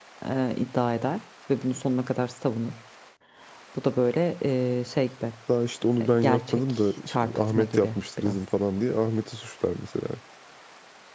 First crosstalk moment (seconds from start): 6.1 s

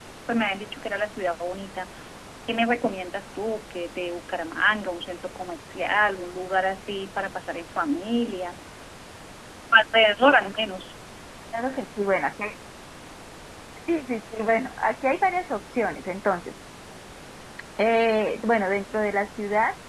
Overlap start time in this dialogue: none

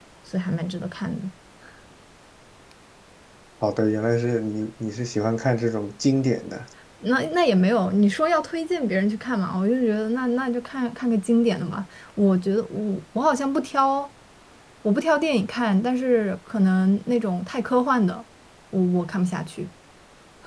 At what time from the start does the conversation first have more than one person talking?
none

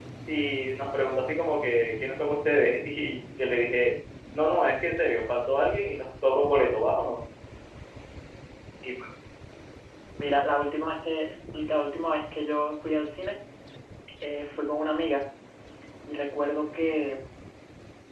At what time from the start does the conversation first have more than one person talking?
none

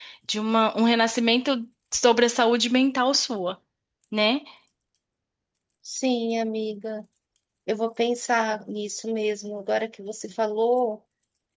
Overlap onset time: none

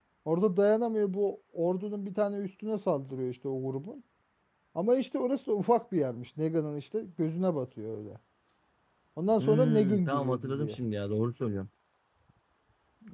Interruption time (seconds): 9.4 s

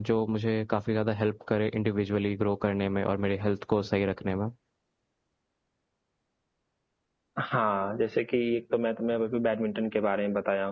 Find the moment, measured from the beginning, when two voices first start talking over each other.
none

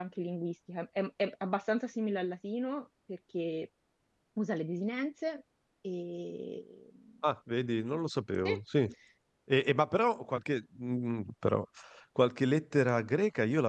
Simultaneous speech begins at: none

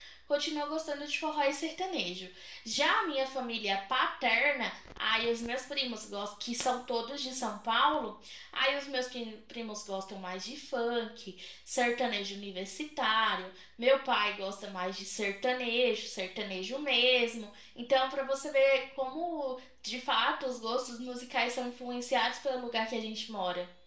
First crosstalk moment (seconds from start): none

